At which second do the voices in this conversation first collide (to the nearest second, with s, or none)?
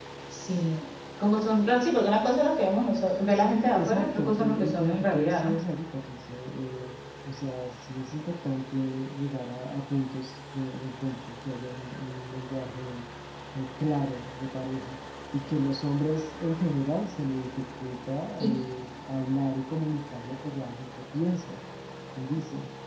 3 s